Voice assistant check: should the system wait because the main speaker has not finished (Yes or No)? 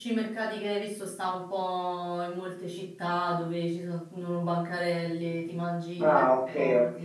No